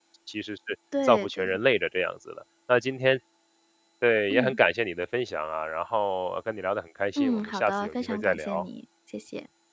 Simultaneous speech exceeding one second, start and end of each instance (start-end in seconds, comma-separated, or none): 7.2-8.6